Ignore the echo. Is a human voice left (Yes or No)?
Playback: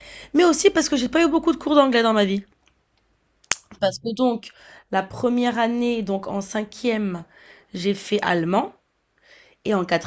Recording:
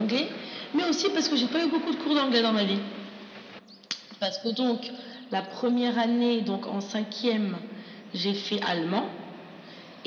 No